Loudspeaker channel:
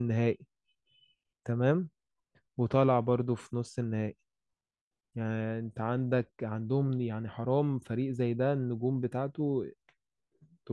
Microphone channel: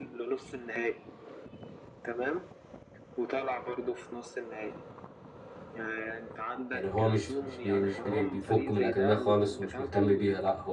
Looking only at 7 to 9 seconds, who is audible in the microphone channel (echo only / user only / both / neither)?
both